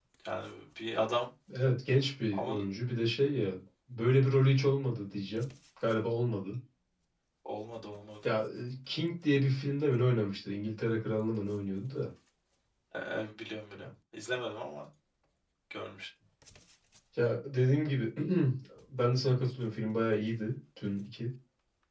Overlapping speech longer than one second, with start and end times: none

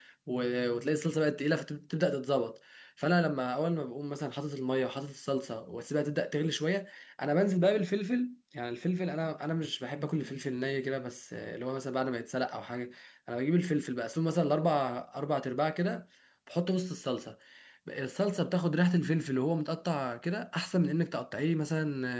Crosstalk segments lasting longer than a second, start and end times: none

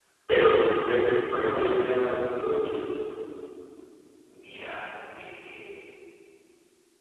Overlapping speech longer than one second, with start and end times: none

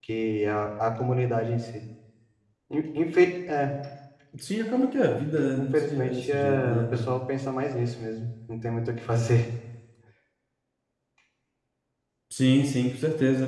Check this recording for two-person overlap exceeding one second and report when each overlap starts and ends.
5.5-7.1

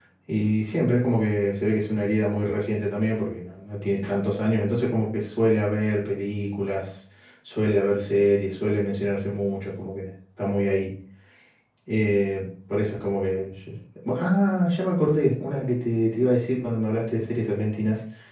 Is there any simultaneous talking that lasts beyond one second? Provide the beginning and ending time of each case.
none

